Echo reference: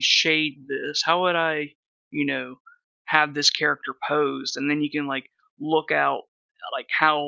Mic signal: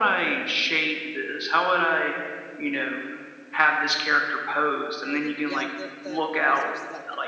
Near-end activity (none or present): present